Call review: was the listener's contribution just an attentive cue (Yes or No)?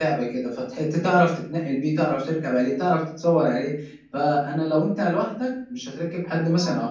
Yes